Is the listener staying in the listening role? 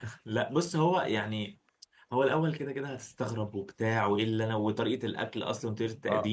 No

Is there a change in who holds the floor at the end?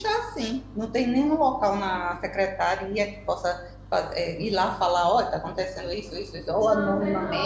Yes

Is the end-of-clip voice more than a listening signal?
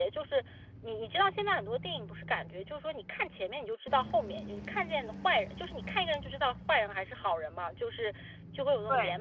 No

